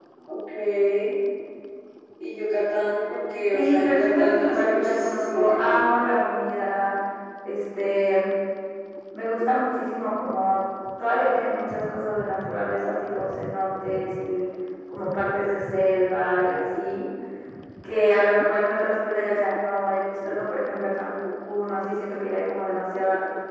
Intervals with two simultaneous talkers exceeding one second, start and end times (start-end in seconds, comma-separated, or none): 3.5-5.7